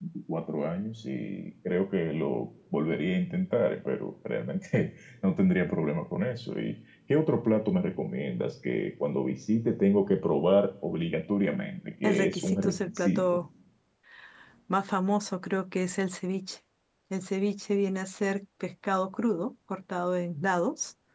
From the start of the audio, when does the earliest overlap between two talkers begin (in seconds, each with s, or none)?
12.0 s